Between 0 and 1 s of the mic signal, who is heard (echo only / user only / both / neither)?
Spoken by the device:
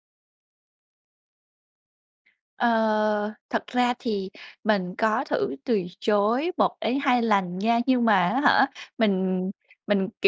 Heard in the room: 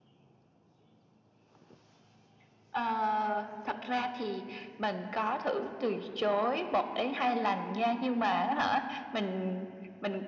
neither